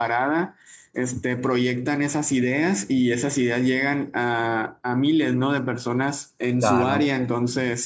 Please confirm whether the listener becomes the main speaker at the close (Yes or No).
No